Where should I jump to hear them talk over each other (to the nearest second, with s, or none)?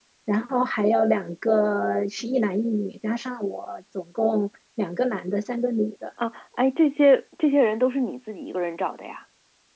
none